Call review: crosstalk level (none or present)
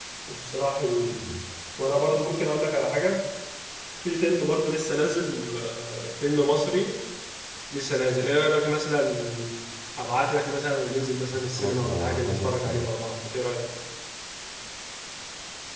present